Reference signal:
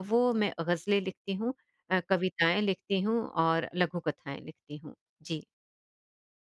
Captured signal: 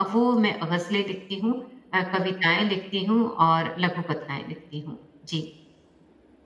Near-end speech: none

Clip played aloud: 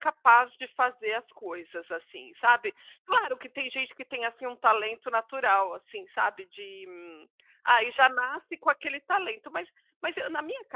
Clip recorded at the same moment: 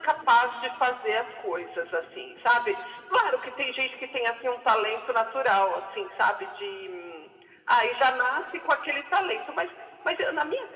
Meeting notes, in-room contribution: none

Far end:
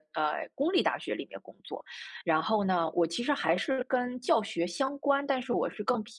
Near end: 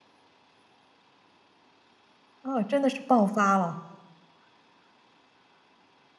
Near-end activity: present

